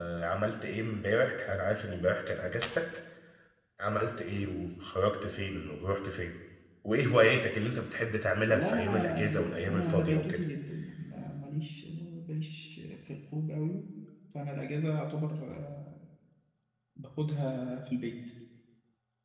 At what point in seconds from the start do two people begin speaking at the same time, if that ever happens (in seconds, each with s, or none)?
8.5 s